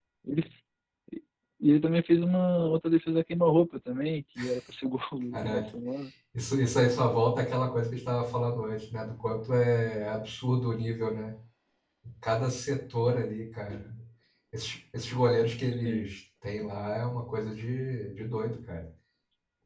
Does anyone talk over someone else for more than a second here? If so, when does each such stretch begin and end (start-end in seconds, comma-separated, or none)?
none